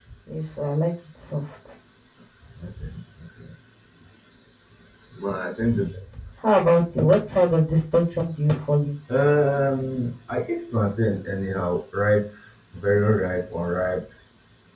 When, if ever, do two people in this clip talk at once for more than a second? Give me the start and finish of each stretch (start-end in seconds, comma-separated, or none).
none